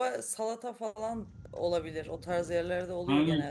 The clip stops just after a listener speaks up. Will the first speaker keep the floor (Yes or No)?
No